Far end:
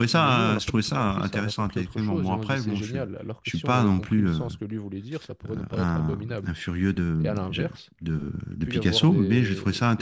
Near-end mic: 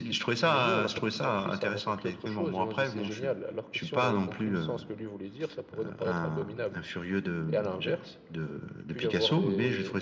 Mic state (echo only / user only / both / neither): echo only